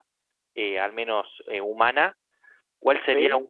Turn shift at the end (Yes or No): No